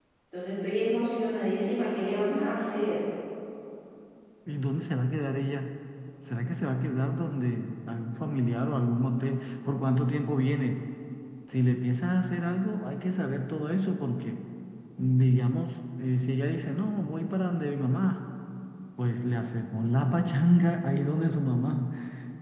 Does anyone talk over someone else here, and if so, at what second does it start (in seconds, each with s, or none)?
none